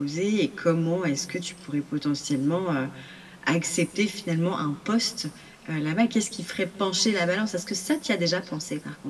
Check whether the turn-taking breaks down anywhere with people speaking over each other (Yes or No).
No